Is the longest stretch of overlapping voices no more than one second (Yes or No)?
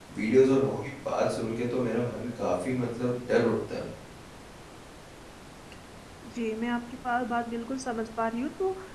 Yes